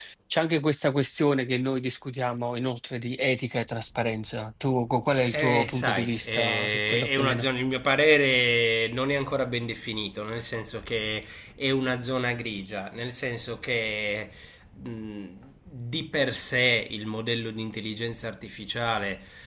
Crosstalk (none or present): present